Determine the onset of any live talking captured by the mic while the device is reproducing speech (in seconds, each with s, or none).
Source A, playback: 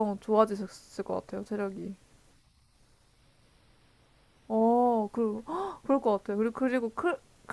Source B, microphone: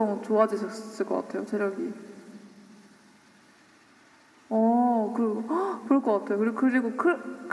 none